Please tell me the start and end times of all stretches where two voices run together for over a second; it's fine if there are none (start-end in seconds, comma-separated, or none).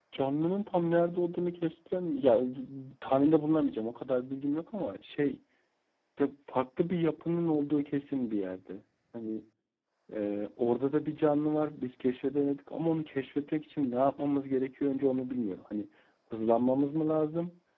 none